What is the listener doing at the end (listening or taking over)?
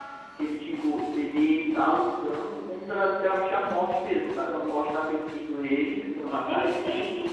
taking over